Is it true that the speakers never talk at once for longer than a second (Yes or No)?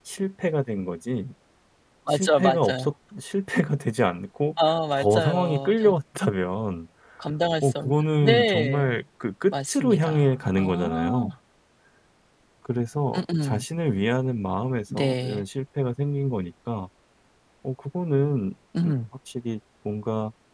No